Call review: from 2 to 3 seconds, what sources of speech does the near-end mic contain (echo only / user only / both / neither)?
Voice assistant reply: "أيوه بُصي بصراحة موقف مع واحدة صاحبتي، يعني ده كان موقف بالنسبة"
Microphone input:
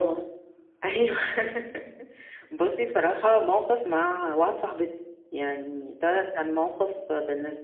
echo only